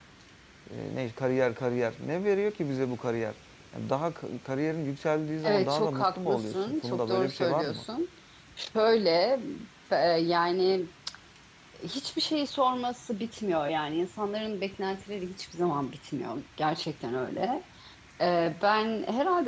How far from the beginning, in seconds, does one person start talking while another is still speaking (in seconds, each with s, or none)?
5.4 s